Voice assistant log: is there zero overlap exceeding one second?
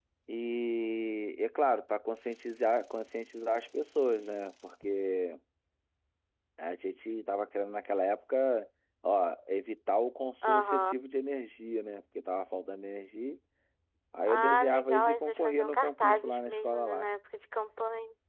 No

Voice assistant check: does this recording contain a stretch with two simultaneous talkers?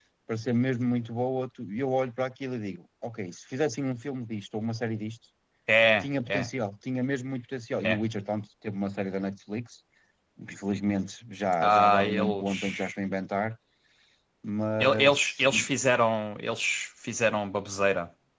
Yes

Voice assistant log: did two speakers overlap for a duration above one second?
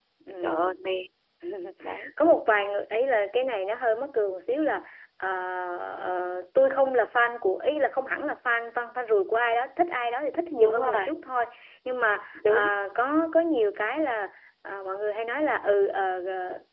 No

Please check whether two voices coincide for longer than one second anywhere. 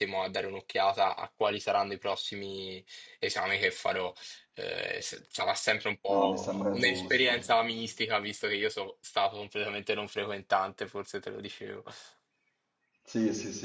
Yes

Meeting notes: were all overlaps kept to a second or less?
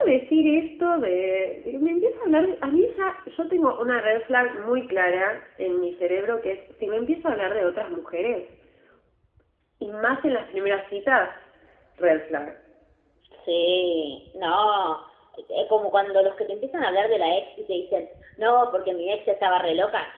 Yes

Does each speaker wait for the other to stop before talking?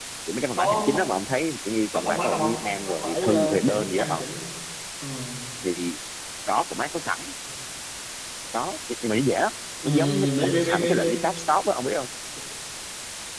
No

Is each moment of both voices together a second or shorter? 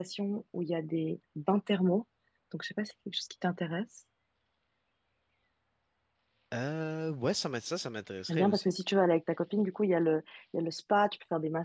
Yes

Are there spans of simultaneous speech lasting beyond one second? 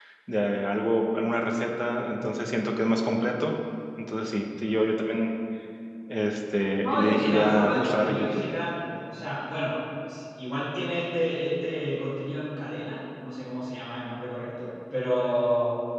Yes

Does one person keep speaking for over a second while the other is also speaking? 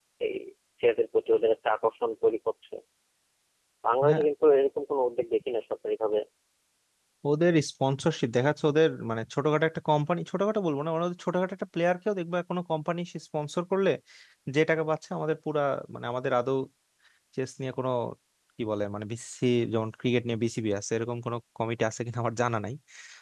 No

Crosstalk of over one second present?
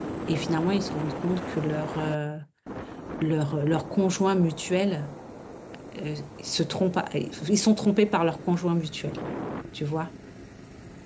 No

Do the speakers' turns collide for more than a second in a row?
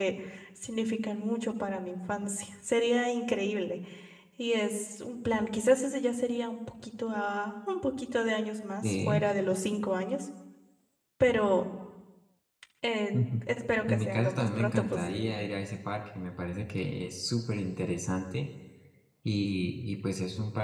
Yes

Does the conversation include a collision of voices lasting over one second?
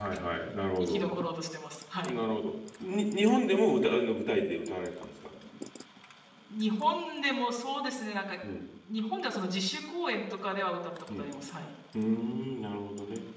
No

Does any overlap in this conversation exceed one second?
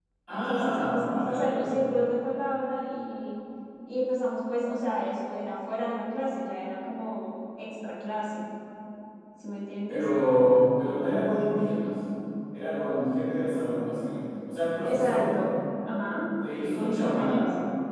Yes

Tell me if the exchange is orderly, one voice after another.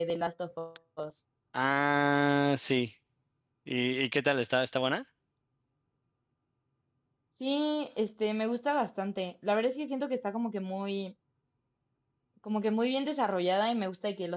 Yes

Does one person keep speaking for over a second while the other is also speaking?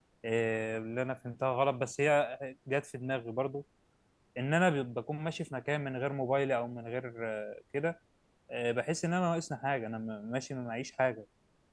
No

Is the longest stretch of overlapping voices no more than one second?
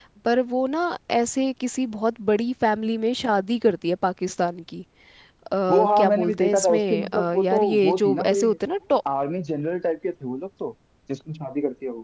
No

